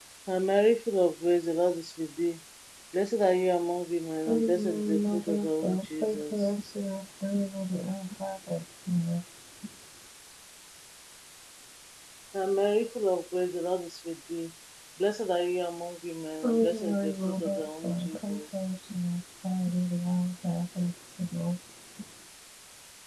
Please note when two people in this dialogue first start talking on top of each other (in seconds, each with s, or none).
4.3 s